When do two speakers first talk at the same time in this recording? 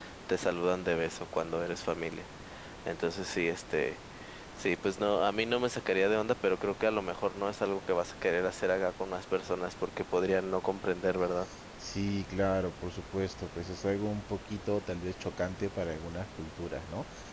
none

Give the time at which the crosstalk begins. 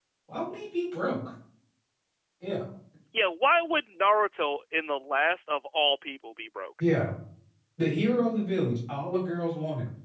none

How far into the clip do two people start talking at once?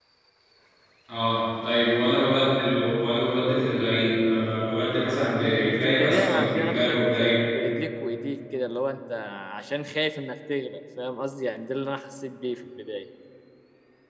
5.1 s

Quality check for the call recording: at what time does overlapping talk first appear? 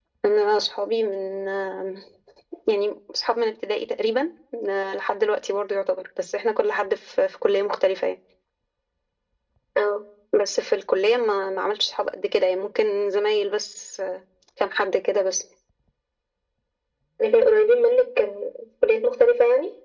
none

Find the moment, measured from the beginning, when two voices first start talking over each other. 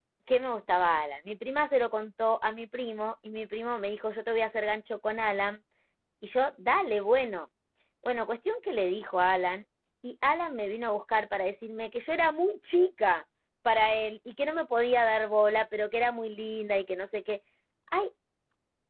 none

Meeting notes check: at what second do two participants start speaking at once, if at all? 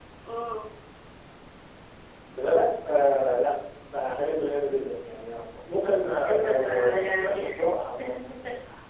6.3 s

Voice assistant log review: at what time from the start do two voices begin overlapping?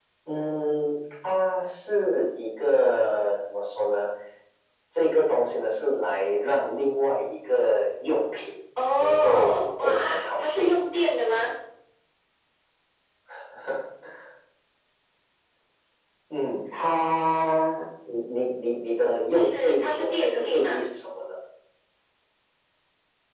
9.0 s

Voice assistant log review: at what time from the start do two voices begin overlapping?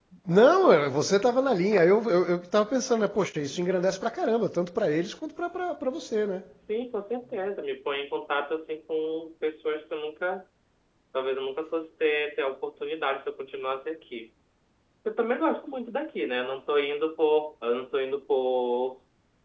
none

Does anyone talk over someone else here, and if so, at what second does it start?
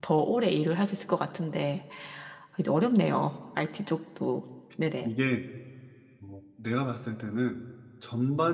none

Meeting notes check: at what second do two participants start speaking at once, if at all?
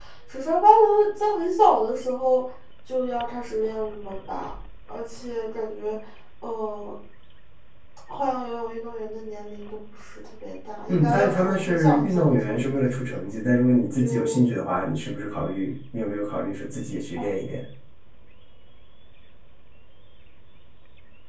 10.9 s

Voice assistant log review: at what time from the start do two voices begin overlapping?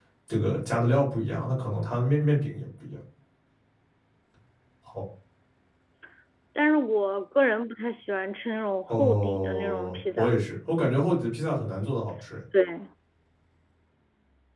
8.9 s

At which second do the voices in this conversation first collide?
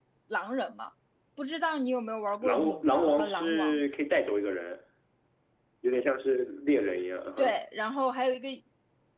2.4 s

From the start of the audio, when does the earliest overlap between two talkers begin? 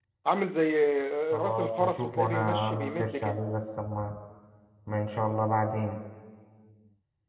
1.3 s

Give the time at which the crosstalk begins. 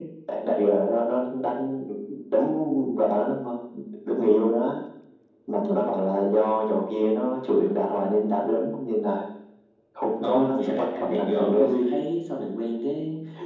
10.2 s

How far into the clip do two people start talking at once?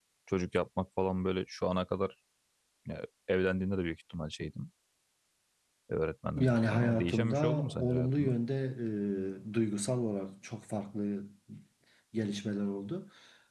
6.4 s

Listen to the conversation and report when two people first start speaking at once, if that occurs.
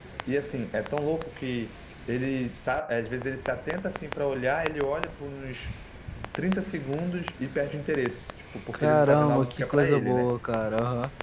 8.7 s

